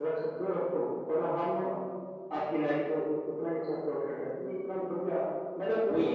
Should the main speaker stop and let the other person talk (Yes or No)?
Yes